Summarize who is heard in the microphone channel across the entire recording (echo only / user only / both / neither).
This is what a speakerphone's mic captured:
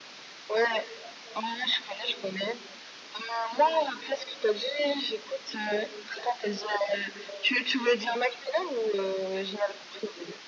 echo only